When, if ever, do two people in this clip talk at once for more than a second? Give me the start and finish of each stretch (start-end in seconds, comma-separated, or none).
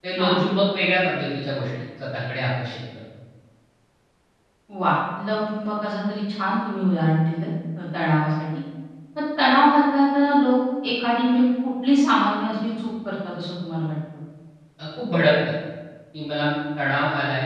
none